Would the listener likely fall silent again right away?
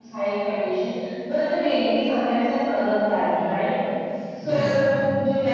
Yes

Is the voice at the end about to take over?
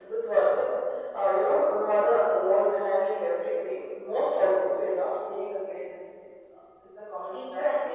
Yes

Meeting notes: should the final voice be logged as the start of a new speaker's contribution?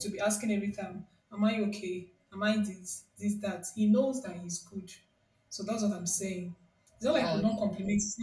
No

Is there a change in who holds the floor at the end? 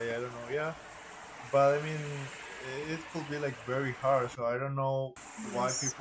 No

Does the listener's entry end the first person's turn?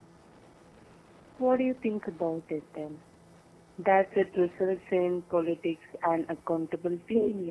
Yes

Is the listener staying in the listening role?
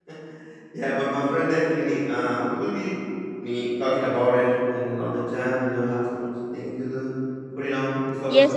No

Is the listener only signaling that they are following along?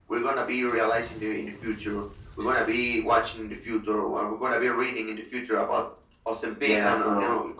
Yes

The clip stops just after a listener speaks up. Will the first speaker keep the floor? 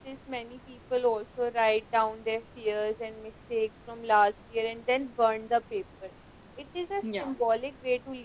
Yes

